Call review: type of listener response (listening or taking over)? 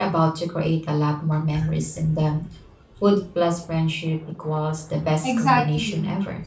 taking over